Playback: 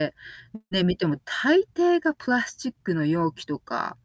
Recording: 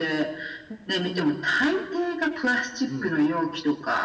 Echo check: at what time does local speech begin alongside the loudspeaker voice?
2.8 s

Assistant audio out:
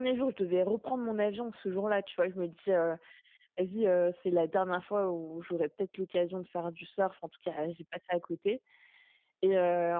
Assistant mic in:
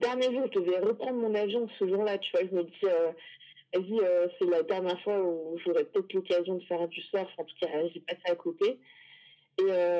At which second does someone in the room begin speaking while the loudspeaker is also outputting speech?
none

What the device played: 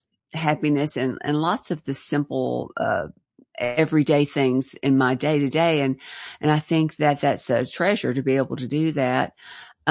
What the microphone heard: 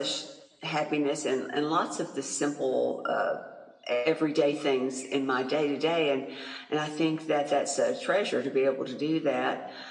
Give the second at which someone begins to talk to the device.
none

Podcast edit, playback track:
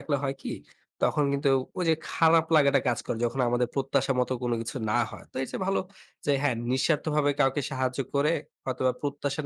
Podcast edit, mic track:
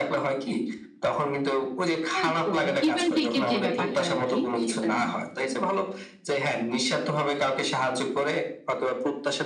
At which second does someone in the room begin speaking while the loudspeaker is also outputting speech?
2.1 s

